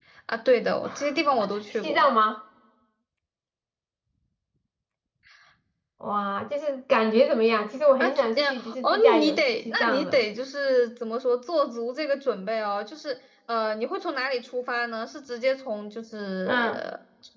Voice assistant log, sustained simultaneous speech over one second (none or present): present